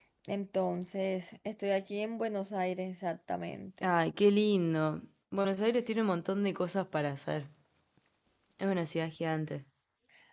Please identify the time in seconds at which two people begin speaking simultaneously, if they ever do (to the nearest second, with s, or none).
none